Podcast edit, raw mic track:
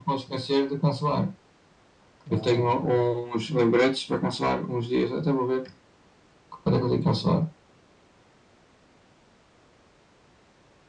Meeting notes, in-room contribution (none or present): present